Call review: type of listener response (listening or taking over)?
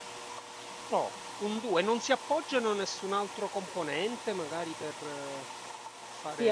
taking over